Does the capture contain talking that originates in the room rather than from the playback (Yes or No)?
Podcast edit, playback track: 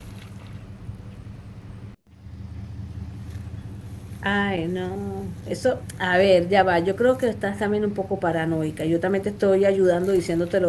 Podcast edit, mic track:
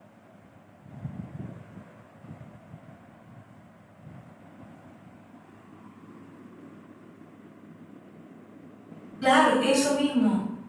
Yes